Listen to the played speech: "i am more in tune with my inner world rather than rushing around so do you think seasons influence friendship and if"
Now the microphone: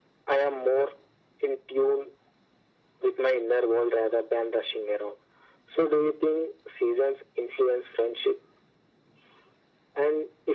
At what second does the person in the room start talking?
none

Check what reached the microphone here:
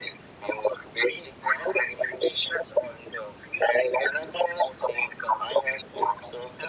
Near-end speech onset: none

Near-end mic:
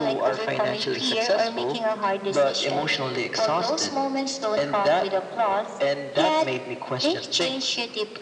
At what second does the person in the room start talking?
none

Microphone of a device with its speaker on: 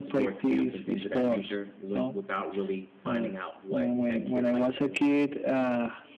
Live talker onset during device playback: none

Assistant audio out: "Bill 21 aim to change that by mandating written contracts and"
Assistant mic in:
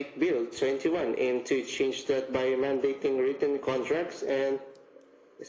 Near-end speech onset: none

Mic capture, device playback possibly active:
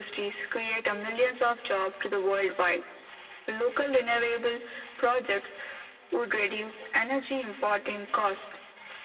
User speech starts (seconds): none

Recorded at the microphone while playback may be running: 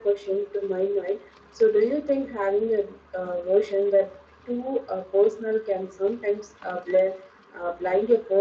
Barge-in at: none

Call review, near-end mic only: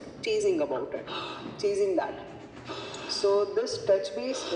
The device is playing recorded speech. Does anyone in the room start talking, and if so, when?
none

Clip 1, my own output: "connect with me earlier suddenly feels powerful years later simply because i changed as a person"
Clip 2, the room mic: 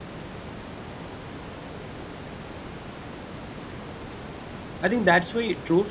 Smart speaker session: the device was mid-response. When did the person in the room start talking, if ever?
4.8 s

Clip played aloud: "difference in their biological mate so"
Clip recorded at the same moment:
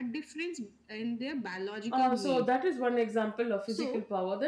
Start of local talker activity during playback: 1.9 s

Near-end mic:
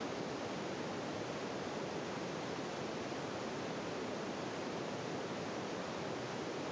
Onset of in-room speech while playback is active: none

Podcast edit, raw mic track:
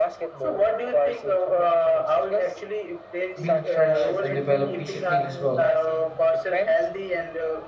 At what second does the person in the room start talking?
3.4 s

